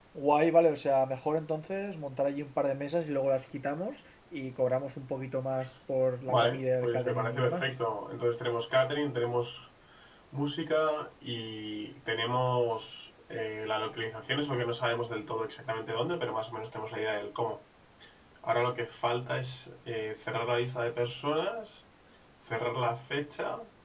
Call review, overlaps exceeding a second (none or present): present